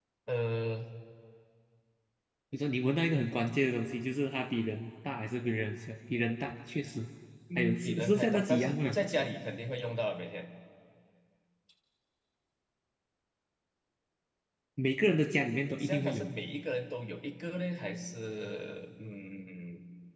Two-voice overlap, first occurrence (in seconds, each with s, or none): 7.6 s